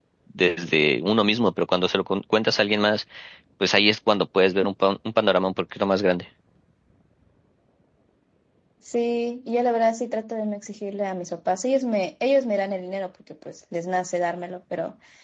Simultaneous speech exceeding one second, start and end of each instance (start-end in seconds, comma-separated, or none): none